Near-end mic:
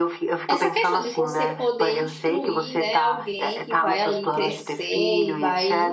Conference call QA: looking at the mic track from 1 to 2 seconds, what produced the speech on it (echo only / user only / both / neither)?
both